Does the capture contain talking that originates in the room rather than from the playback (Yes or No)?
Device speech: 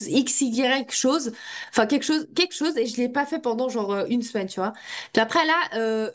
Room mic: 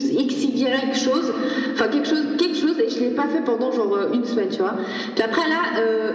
No